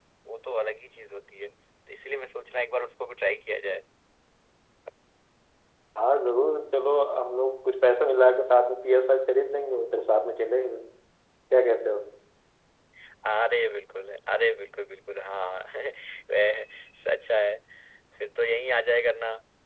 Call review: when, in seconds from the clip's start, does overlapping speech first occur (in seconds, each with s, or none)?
none